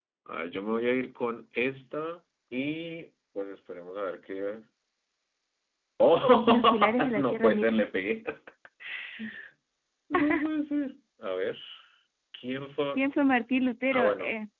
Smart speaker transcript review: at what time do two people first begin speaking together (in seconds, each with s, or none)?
6.5 s